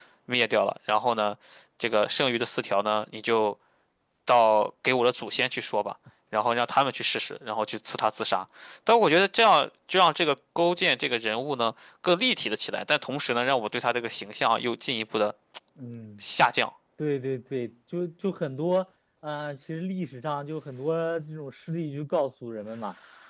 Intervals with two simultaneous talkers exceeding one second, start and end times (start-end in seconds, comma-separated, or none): none